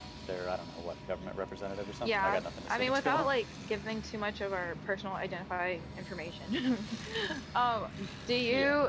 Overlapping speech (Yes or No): Yes